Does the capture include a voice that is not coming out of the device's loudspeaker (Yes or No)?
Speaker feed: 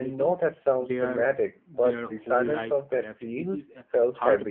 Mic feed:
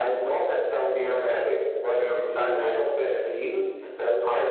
No